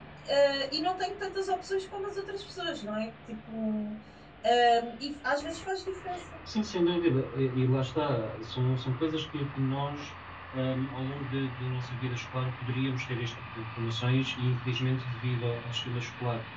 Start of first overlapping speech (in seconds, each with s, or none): none